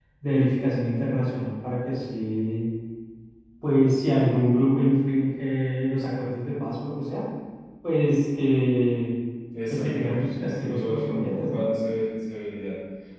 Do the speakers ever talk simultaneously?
Yes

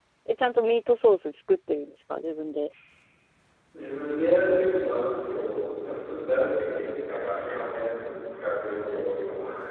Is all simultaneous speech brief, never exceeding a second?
Yes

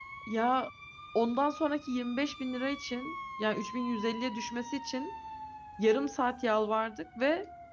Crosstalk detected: No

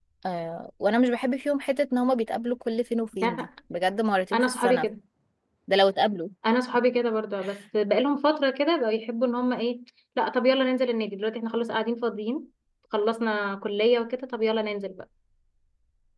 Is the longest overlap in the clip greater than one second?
No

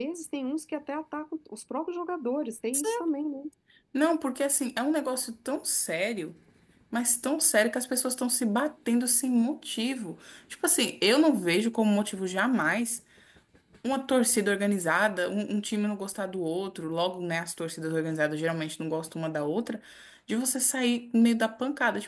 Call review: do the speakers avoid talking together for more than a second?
Yes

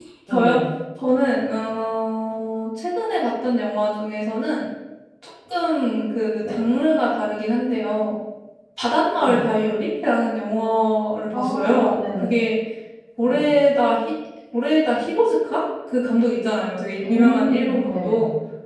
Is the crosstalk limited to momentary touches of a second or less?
No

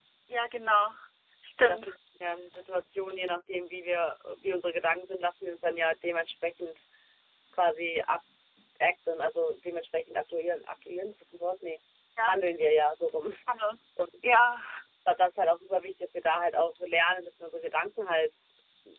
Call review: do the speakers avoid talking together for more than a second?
Yes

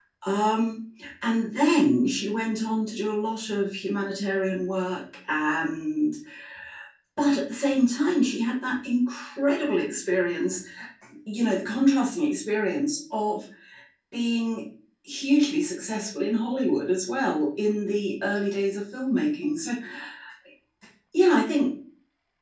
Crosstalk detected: No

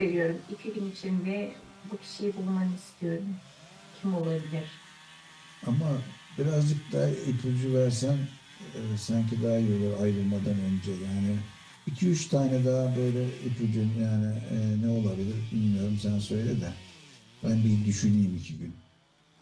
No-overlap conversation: Yes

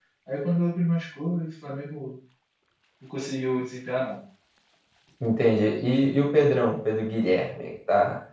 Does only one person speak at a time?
Yes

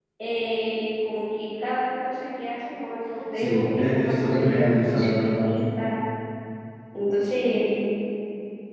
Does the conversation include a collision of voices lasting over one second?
Yes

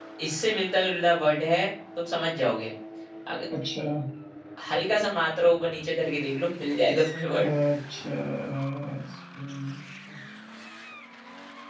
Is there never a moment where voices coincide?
Yes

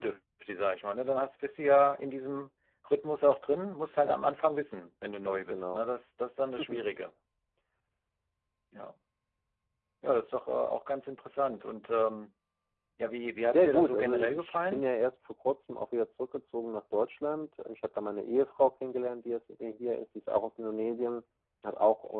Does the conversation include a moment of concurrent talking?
Yes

